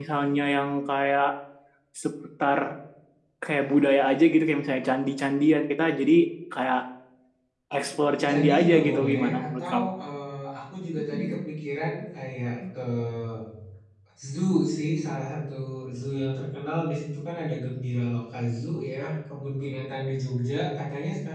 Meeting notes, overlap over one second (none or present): present